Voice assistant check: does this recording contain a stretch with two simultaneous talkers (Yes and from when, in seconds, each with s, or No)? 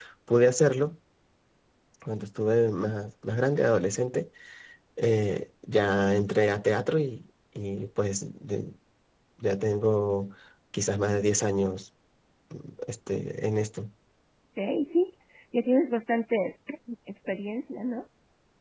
No